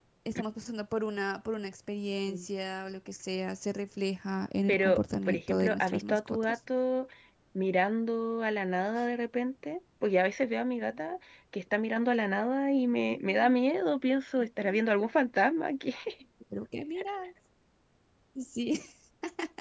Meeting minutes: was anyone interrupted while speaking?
Yes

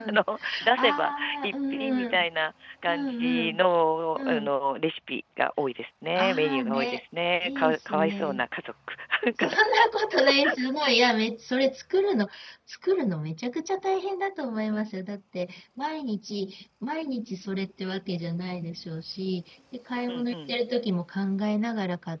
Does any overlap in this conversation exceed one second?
Yes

